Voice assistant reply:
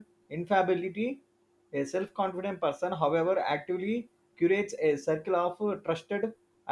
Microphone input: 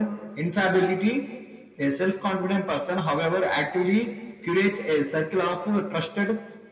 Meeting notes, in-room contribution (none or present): none